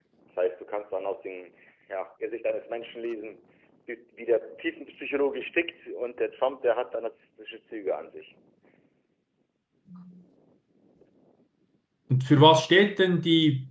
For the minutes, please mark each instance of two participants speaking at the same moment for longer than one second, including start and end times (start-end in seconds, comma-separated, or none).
none